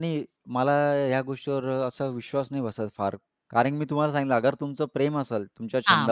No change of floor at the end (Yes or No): Yes